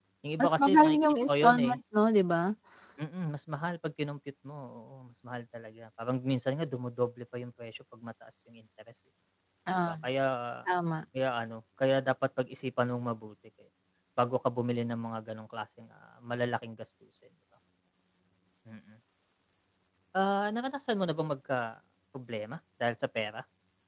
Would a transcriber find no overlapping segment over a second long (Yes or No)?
No